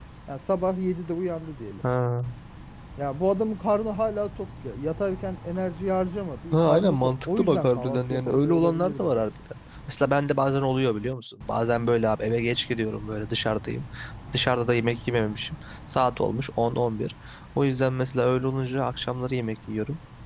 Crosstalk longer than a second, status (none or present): present